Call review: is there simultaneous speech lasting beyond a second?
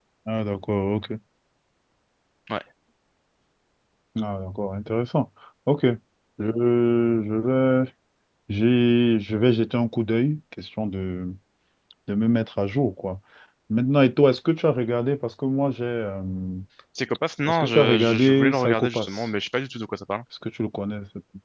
Yes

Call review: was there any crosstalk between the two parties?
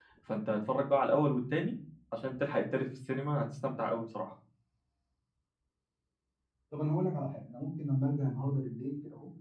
No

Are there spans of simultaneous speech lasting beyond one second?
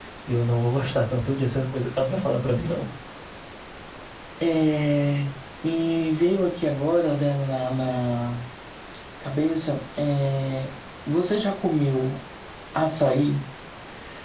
No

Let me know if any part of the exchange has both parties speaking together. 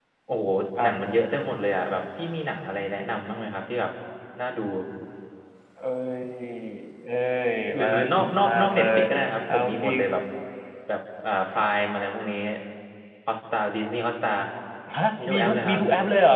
Yes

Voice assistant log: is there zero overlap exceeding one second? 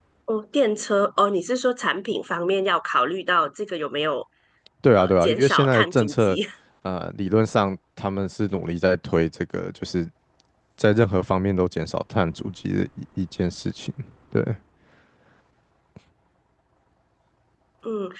No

